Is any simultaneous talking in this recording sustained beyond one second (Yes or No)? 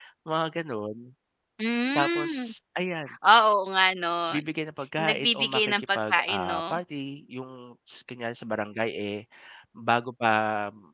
Yes